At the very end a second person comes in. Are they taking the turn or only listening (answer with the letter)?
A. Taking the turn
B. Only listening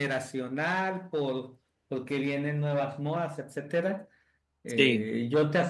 B